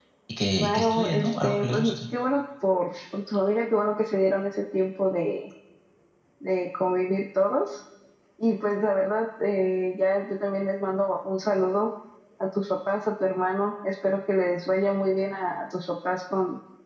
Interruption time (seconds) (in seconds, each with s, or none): 0.6 s